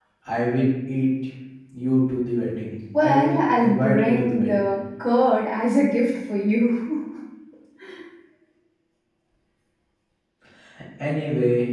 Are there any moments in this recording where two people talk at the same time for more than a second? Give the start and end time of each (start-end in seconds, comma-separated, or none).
3.0-4.7